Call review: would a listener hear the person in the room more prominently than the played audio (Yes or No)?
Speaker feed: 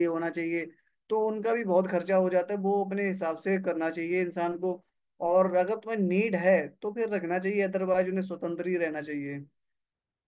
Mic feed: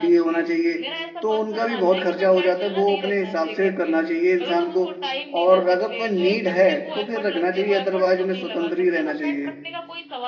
No